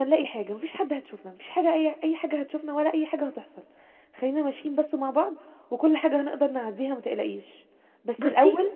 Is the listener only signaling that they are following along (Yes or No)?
Yes